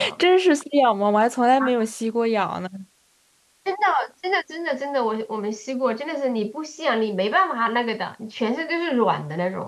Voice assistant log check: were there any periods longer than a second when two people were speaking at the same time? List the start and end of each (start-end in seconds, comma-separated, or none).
none